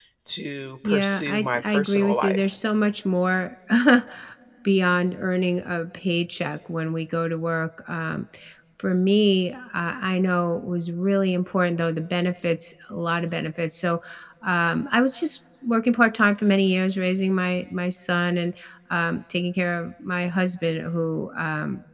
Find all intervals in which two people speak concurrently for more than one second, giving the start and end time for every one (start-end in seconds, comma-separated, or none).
0.8-2.4